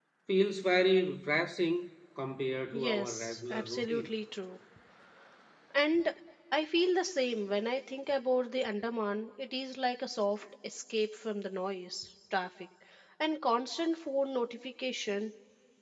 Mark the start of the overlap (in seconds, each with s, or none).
2.7 s